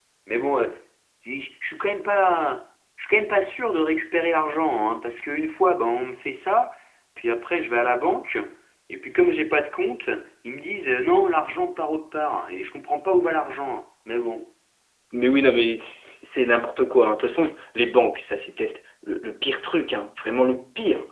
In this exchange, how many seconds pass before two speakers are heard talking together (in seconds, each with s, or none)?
none